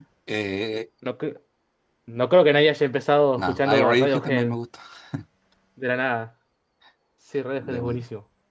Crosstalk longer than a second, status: present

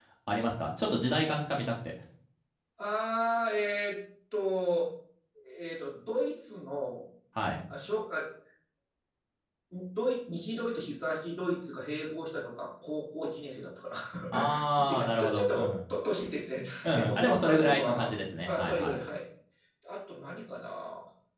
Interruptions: present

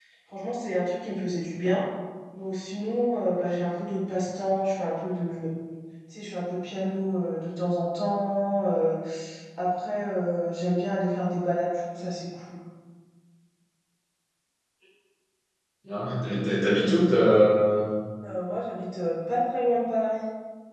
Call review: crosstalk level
none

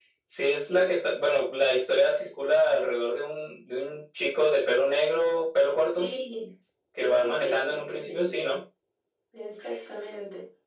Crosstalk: present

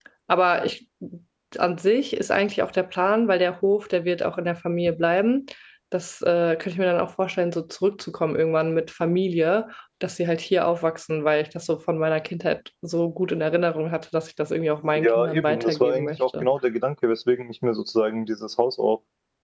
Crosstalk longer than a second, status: present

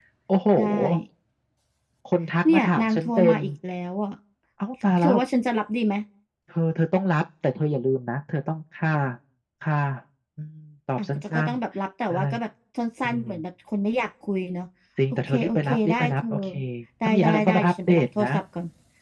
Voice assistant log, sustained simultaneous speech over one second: present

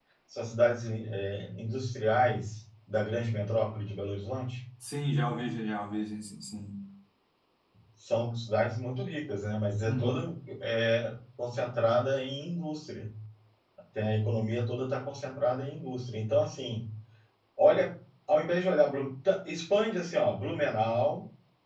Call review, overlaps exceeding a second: none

